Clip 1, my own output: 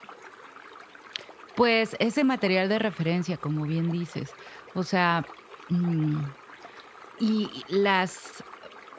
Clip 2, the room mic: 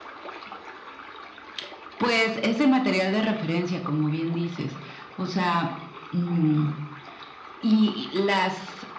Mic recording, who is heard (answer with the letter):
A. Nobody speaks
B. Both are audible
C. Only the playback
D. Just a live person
C